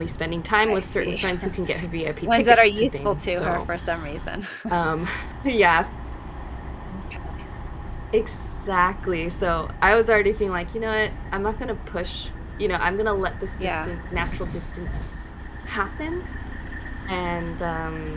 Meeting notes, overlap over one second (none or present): present